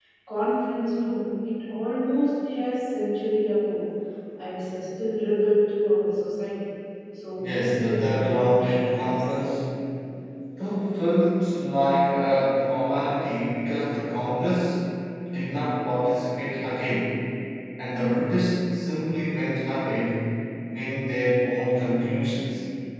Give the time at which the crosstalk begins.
7.4 s

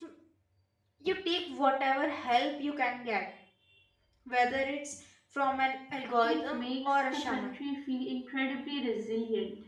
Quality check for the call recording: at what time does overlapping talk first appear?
6.2 s

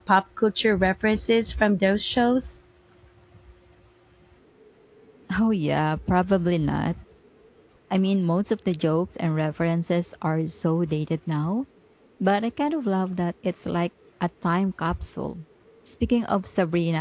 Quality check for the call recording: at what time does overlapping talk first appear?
none

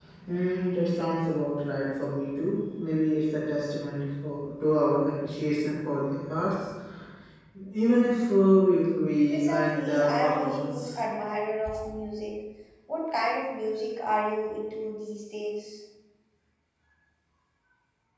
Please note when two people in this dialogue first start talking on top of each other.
9.3 s

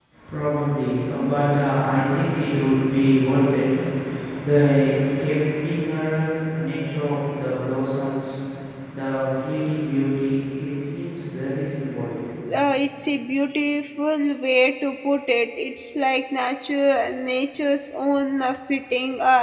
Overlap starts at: none

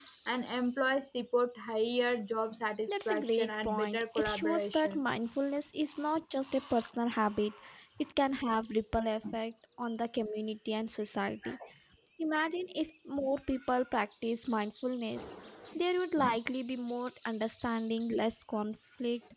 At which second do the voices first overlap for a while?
2.9 s

